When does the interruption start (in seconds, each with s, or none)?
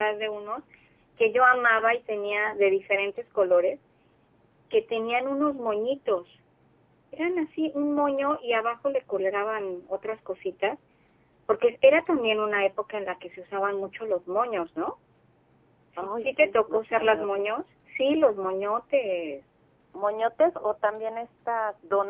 16.0 s